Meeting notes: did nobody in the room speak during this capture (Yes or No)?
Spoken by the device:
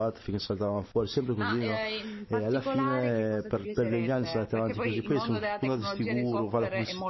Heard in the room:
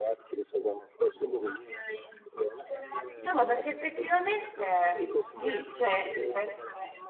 No